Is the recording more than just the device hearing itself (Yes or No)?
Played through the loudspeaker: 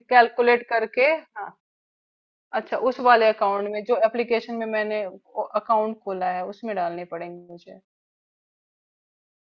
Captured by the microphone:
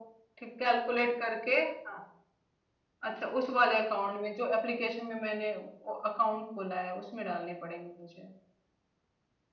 No